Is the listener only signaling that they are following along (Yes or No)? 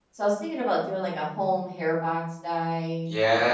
No